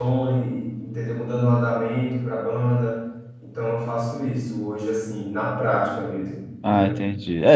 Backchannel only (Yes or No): No